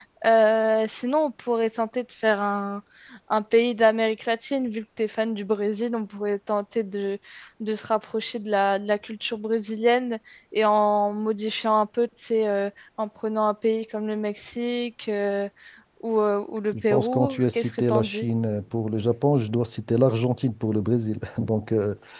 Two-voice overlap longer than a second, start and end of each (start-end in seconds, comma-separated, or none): 16.7-18.3